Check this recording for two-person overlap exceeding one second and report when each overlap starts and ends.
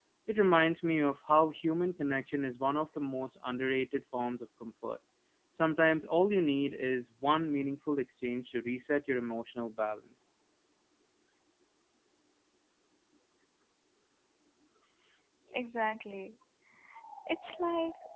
none

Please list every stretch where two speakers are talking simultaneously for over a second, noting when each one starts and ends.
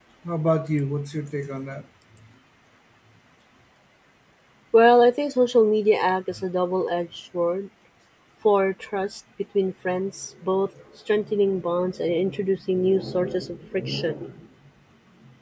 none

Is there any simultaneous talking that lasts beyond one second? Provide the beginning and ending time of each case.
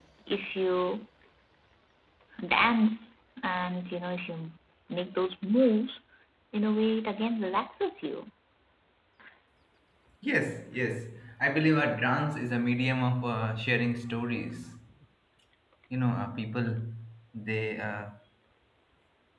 none

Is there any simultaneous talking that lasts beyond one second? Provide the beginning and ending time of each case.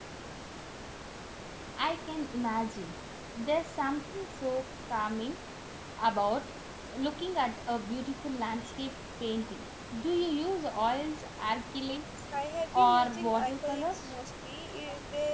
12.7-14.1

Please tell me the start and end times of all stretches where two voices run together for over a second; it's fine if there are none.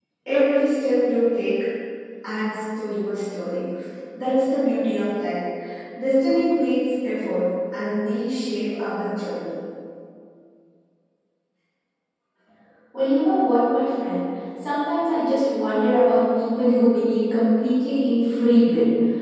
none

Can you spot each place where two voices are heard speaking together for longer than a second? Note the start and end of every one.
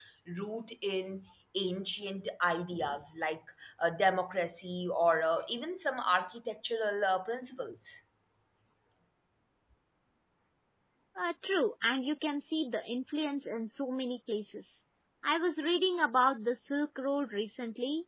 none

